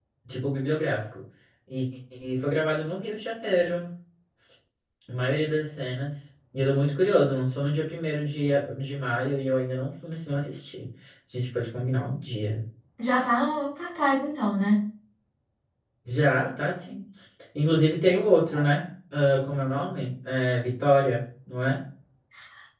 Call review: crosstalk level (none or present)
none